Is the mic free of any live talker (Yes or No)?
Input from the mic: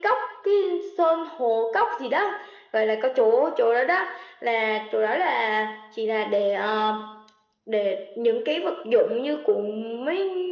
Yes